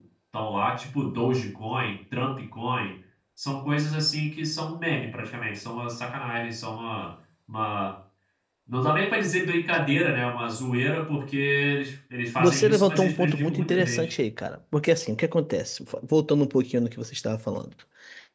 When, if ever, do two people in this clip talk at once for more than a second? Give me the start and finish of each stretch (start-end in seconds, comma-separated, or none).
12.4-14.1